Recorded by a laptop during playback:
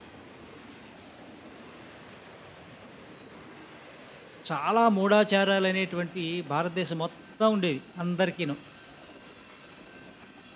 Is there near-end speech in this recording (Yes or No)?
Yes